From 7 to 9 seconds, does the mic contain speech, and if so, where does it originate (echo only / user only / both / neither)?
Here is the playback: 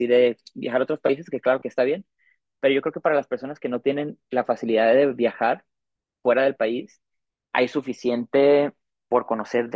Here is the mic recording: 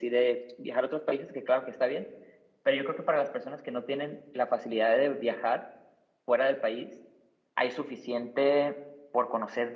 echo only